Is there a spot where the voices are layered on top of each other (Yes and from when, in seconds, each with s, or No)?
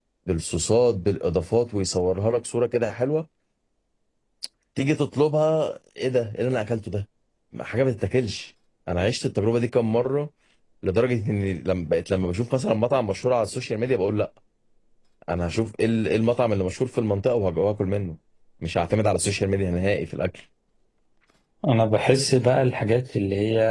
No